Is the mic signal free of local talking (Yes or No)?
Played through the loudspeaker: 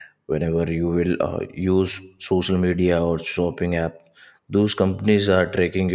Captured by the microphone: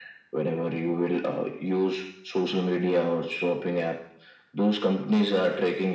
Yes